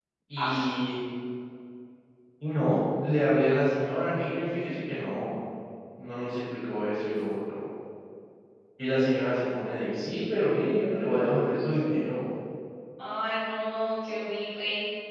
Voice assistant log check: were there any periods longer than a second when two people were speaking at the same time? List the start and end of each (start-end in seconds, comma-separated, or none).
none